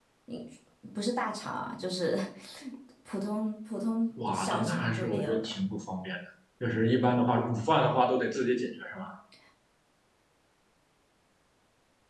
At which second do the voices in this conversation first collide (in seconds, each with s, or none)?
4.2 s